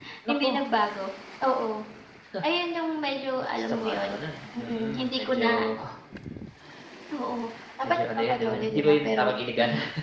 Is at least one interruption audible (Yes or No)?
Yes